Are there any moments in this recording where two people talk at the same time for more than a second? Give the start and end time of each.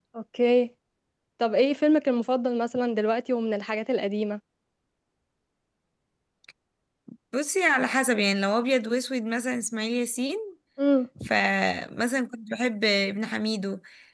none

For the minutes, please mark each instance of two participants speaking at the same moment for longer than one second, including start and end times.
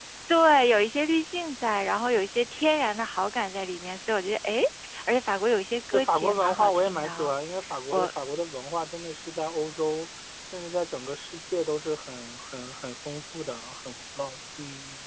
5.9-7.3

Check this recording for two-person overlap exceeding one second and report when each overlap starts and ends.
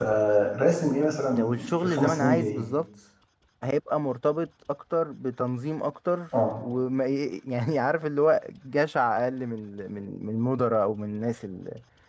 1.3-2.7

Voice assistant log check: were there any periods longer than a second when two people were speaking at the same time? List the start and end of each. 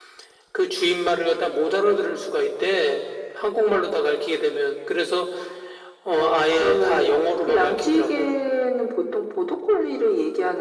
6.2-8.3

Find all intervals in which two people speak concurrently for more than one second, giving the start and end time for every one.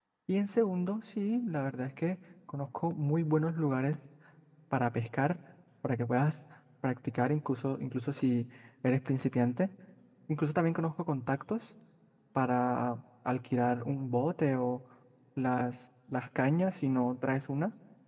none

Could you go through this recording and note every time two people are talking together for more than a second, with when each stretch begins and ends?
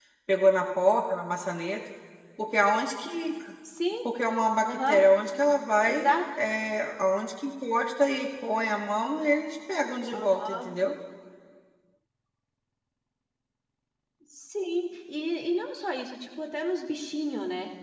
none

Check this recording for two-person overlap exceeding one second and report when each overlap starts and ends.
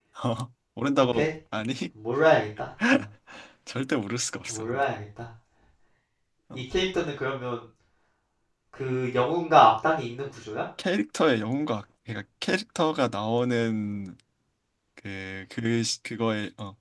none

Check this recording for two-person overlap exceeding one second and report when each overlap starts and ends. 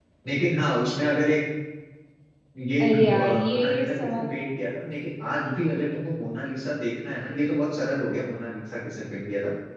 2.8-4.3

